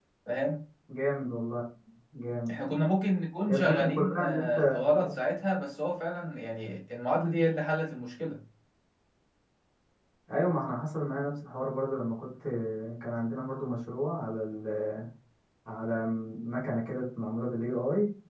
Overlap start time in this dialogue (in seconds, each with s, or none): 3.5 s